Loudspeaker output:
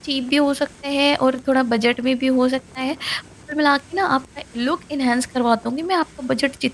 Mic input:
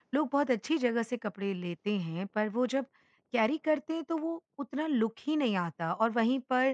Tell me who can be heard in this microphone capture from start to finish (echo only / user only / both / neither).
user only